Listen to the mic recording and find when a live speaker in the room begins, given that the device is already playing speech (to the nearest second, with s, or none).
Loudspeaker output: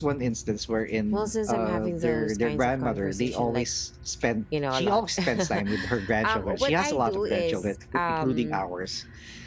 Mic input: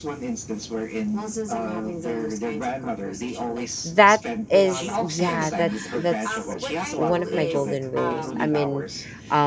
4 s